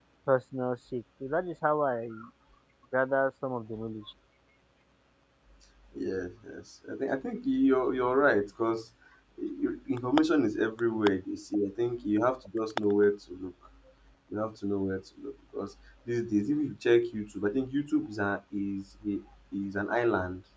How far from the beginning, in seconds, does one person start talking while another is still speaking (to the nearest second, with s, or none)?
none